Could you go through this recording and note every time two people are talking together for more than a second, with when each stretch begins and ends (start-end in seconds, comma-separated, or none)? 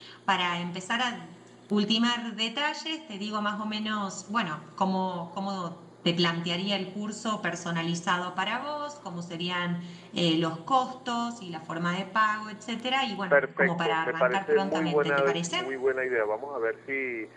13.3-15.7